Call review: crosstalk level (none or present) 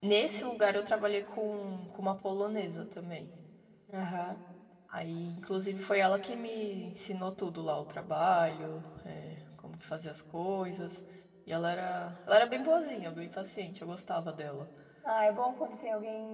none